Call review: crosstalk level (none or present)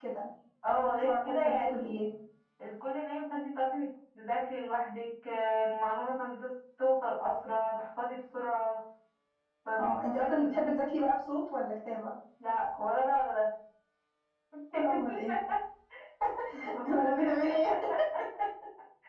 present